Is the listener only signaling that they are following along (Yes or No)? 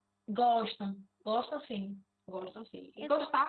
Yes